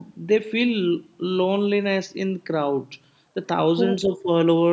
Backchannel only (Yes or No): Yes